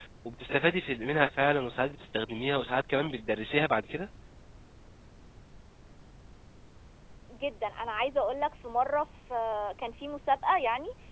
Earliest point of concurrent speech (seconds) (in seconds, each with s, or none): none